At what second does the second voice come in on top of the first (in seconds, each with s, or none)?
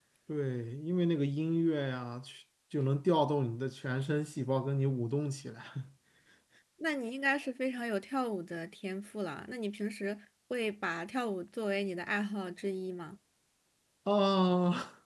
none